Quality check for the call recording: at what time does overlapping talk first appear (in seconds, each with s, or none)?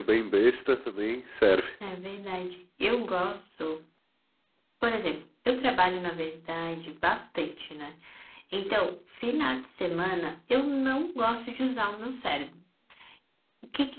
none